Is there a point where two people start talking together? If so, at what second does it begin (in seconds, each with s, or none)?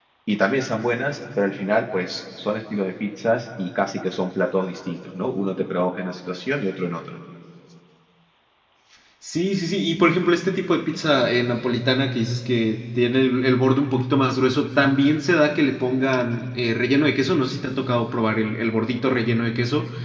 none